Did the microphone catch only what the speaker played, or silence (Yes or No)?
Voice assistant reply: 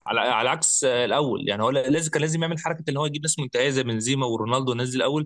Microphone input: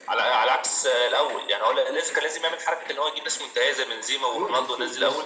No